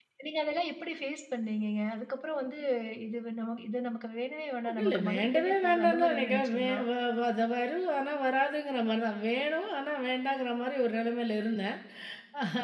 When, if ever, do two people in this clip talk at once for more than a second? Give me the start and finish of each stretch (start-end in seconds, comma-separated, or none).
4.8-6.8